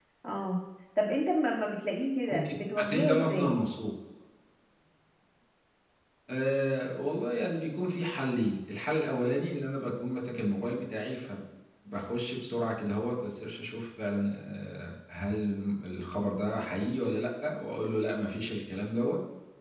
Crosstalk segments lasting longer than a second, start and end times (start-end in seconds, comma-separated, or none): 2.3-3.5